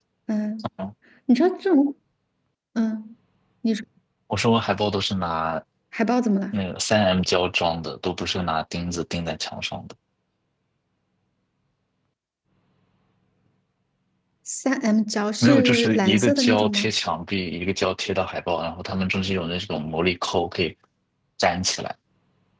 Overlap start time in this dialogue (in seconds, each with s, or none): 15.4 s